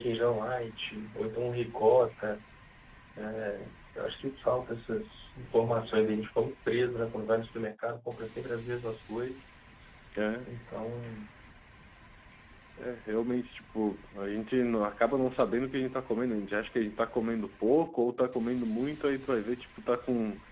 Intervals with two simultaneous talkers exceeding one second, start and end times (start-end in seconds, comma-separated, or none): none